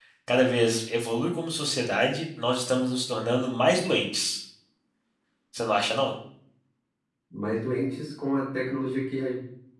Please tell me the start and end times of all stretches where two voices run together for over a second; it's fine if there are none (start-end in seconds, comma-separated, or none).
none